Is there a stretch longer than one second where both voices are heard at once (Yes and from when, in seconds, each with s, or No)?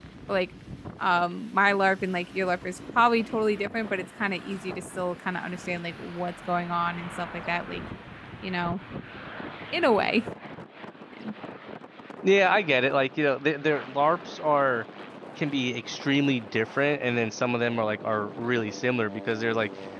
No